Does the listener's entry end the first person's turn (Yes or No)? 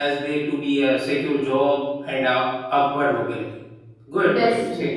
Yes